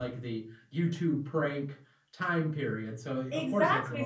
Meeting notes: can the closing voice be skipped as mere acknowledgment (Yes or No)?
No